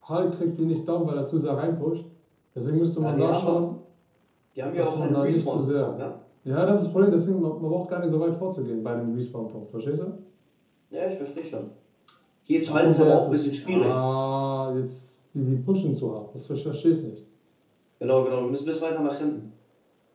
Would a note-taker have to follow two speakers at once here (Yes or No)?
Yes